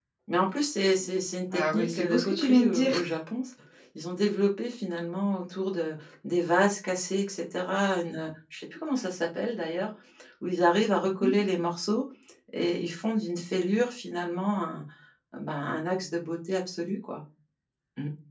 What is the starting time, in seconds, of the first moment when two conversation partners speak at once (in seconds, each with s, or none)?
1.5 s